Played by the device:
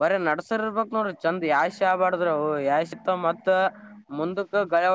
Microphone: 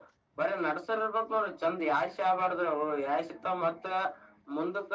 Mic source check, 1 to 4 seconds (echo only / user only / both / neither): echo only